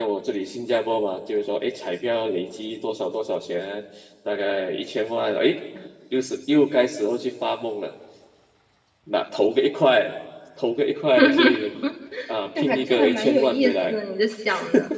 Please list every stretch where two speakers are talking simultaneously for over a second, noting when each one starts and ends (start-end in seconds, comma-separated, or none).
12.6-14.0